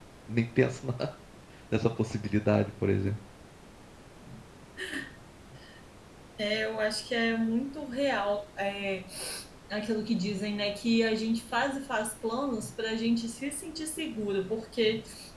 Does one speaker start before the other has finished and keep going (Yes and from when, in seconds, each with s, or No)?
No